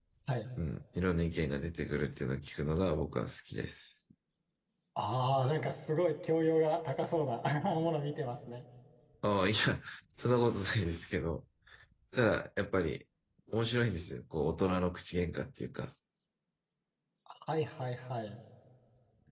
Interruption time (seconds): none

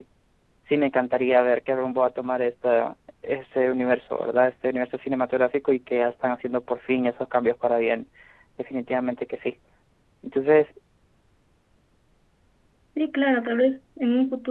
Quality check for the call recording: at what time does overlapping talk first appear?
none

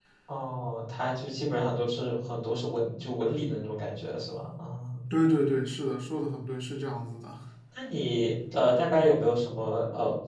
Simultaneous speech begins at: none

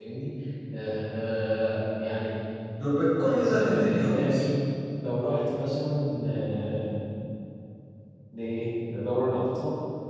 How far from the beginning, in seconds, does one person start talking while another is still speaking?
3.2 s

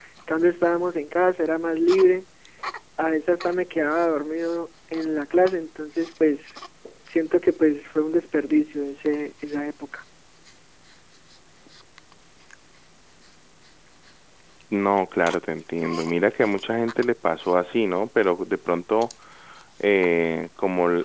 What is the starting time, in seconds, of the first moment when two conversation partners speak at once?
none

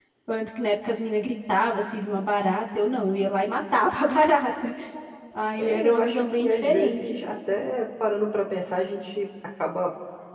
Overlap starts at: 5.6 s

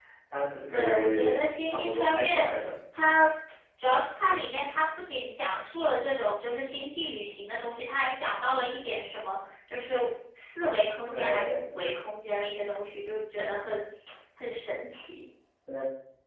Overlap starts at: 0.7 s

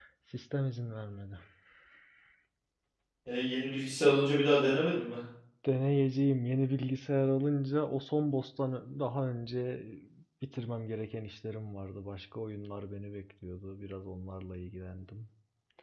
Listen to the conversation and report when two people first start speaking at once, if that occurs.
none

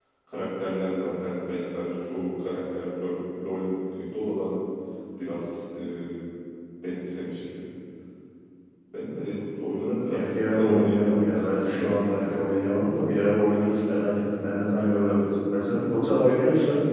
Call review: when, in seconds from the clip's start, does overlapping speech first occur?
10.1 s

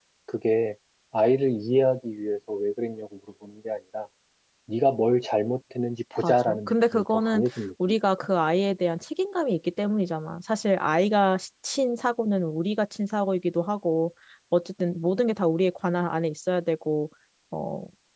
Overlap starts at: 6.2 s

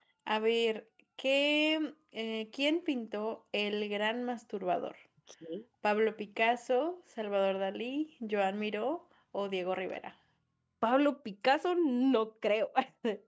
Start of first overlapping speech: none

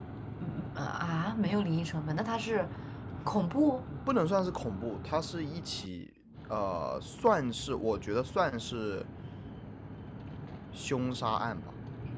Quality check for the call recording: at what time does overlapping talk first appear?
none

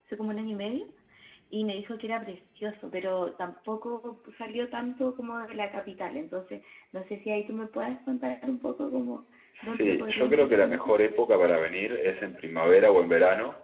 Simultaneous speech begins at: 9.6 s

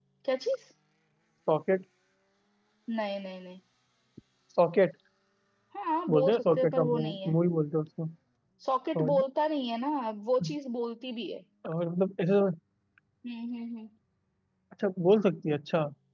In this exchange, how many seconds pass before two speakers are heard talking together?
6.1 s

